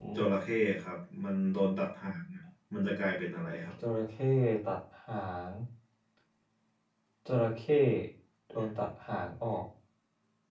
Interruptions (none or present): none